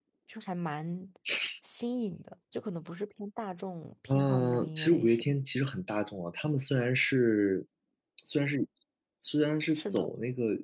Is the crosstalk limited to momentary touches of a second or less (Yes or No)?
No